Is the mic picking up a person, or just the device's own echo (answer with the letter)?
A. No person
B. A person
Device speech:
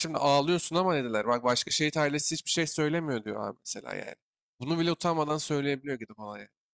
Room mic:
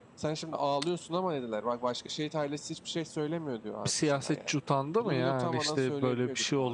B